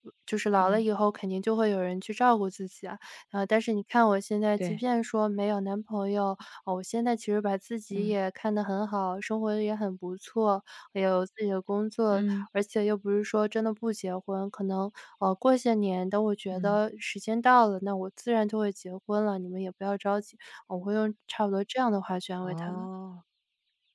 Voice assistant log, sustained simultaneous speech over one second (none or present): none